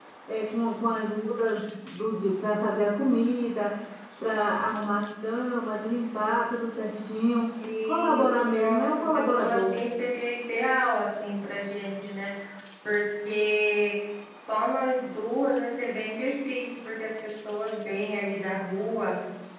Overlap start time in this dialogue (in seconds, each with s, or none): 7.8 s